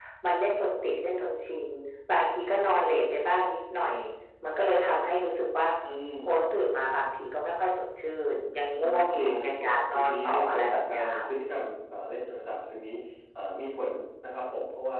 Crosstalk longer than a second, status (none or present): present